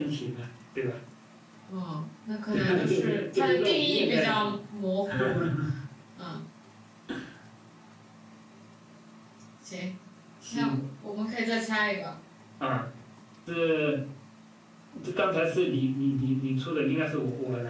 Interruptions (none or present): present